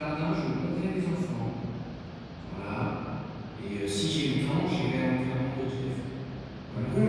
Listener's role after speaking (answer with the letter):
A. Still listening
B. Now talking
B